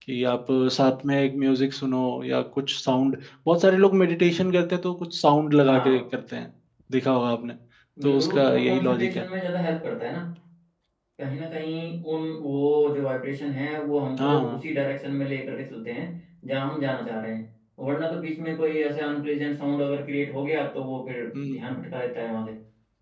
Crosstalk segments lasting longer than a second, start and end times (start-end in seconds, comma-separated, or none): 8.0-9.3